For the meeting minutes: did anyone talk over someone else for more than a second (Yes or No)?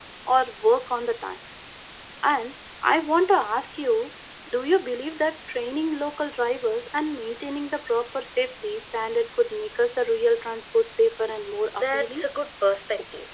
No